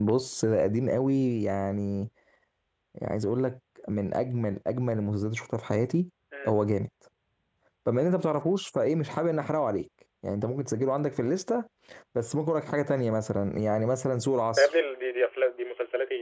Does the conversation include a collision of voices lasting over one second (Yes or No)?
No